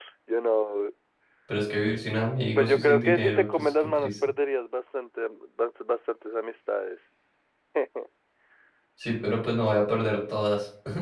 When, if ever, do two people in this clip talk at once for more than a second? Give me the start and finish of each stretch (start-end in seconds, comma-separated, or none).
2.5-4.1